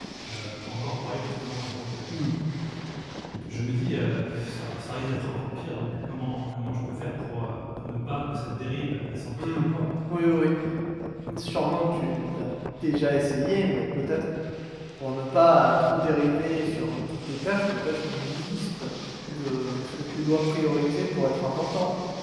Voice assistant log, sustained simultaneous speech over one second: none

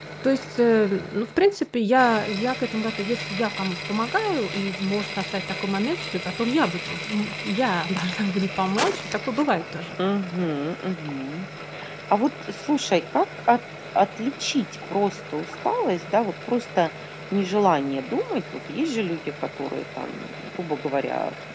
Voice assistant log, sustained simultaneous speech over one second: none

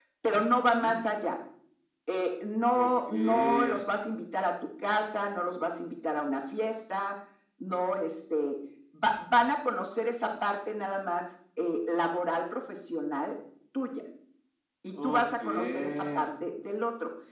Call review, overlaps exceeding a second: present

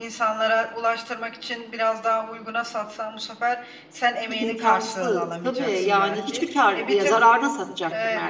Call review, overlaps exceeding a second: present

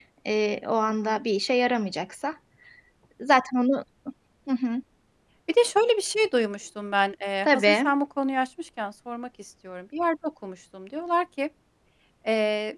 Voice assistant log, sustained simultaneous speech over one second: none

